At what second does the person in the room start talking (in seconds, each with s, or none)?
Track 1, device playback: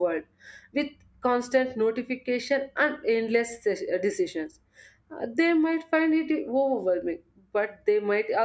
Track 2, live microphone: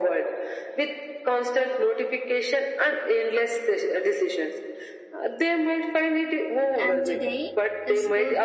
6.8 s